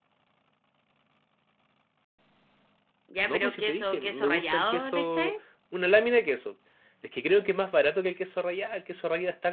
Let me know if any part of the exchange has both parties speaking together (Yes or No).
Yes